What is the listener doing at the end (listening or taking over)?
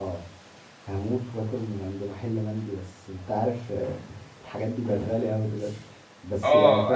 taking over